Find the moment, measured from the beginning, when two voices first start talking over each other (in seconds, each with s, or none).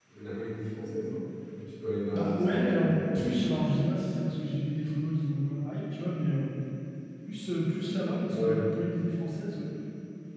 2.1 s